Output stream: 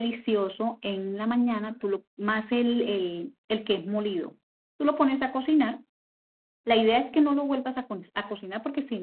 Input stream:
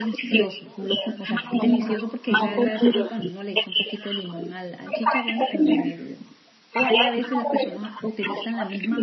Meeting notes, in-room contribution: present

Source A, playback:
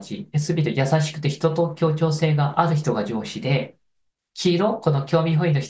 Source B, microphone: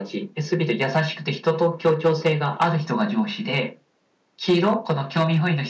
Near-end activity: none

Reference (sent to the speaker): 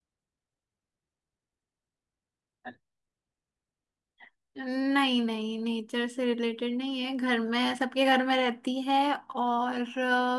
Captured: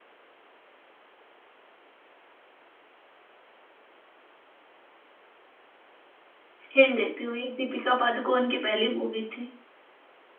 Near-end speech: present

